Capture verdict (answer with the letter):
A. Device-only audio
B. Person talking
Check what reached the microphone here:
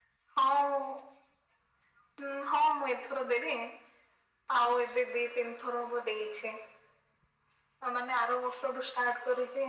A